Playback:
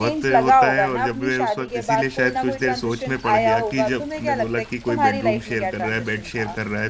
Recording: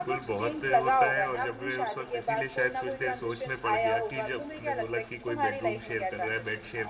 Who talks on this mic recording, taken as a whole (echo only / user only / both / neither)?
echo only